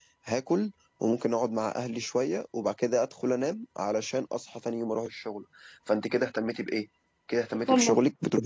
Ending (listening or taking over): listening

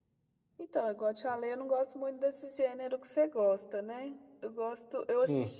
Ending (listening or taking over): listening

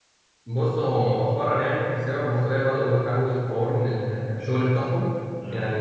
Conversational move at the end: listening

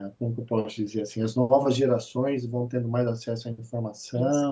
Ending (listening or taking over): listening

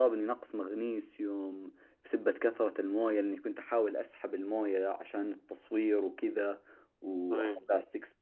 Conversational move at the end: listening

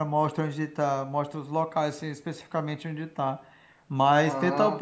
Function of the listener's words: listening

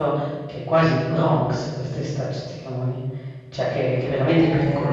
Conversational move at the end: taking over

